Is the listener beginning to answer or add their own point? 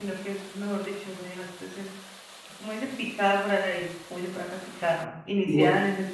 No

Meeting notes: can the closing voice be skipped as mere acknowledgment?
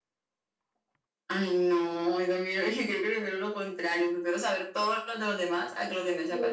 No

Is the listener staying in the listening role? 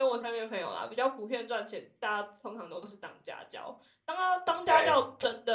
Yes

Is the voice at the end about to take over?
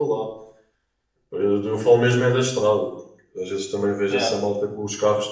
No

